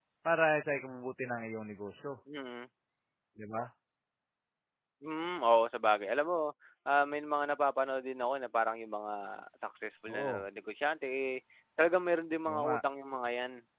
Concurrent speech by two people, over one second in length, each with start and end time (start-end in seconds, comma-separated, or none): none